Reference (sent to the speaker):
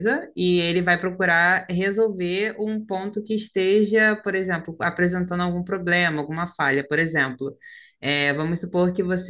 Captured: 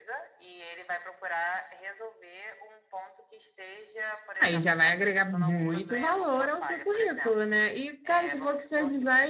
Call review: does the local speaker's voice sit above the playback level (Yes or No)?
Yes